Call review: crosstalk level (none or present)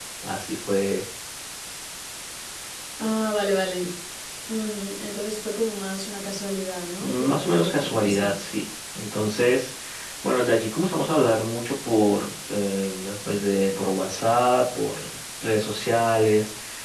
present